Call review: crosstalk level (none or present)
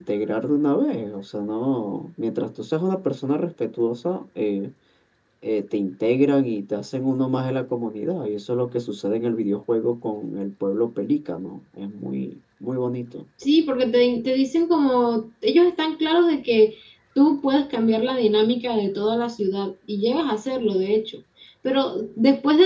none